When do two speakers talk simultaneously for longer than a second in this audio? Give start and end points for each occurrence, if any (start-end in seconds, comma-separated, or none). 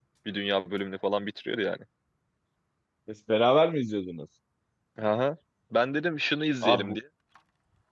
none